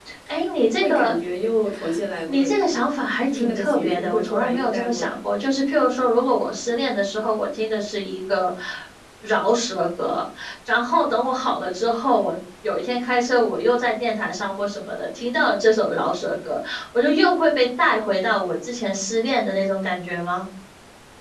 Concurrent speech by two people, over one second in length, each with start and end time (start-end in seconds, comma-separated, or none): 3.2-5.2